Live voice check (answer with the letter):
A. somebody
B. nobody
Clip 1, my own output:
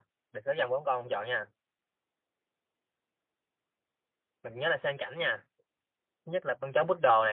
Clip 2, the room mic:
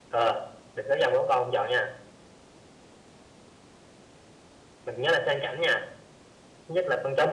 B